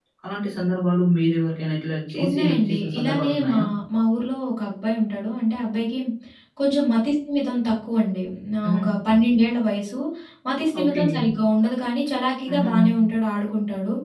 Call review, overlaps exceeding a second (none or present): present